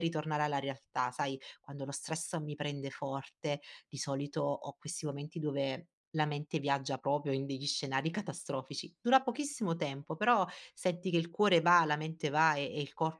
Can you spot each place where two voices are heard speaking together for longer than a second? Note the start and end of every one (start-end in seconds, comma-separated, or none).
none